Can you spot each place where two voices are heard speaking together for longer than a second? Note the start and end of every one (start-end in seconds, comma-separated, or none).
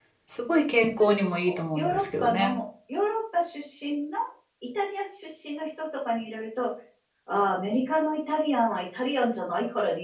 1.0-2.5